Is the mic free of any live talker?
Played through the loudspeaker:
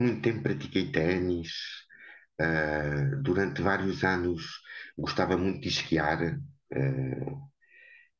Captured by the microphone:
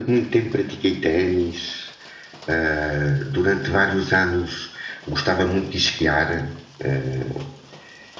Yes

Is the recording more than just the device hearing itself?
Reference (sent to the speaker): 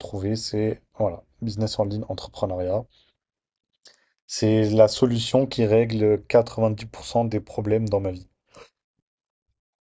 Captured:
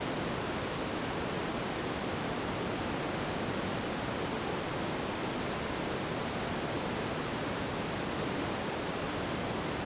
No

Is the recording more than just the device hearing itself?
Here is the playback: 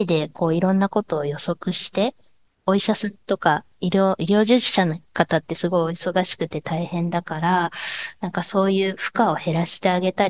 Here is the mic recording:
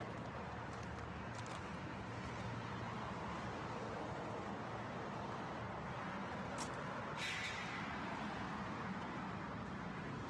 No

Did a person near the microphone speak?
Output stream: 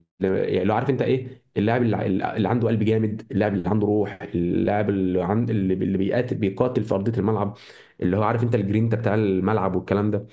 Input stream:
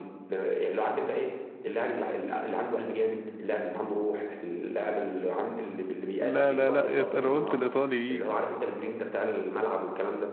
Yes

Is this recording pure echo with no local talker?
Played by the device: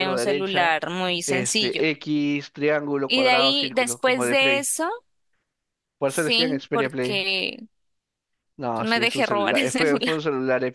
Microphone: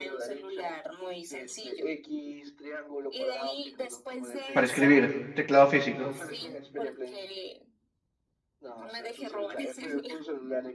No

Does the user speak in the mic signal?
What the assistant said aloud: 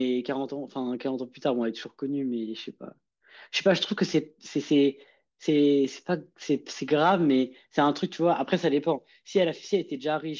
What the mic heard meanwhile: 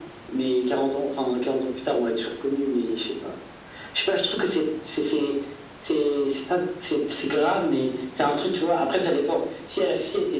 No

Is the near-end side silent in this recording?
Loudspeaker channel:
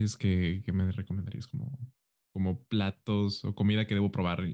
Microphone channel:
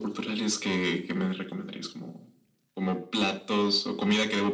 Yes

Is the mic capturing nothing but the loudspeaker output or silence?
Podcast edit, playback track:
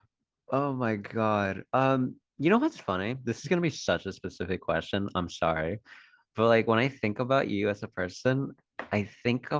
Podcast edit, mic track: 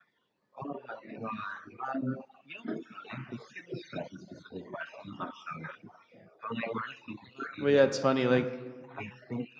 No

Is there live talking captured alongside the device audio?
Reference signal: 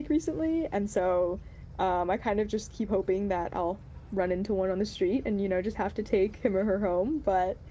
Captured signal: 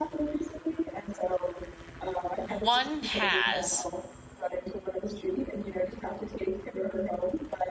Yes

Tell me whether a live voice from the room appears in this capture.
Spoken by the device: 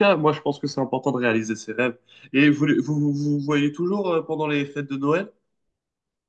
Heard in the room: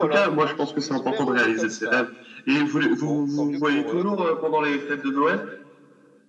Yes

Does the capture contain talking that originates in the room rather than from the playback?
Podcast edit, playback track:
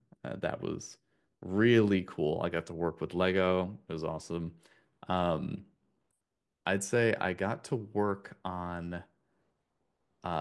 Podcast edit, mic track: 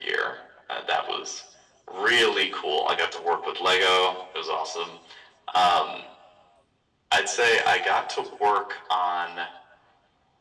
No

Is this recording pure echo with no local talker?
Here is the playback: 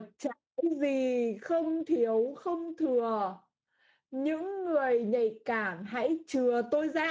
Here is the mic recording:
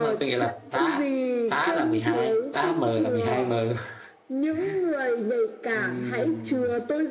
No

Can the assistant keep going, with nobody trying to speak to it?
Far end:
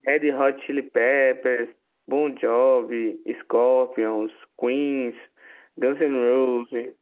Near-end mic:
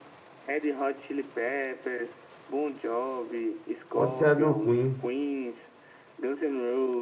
No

